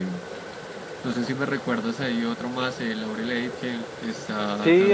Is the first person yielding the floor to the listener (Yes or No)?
Yes